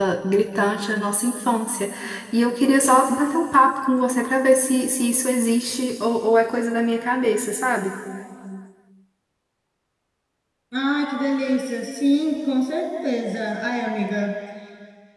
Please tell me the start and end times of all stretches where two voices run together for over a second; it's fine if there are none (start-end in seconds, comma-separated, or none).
none